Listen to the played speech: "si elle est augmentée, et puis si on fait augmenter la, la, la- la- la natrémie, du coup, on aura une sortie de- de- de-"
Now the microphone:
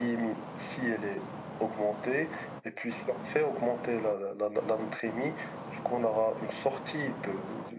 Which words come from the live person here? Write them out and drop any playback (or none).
none